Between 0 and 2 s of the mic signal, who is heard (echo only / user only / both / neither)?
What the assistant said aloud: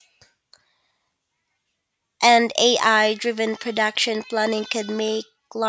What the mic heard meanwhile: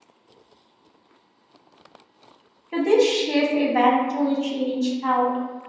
neither